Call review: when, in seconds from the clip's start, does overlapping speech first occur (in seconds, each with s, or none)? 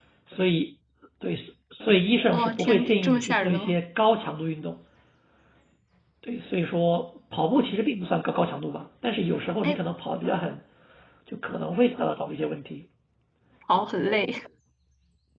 2.3 s